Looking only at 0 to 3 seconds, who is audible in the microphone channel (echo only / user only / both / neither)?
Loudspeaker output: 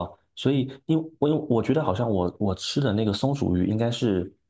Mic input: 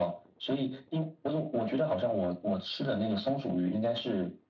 echo only